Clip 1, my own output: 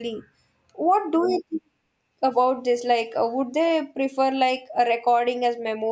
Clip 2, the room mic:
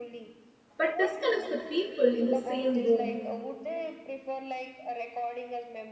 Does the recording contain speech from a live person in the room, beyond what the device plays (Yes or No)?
Yes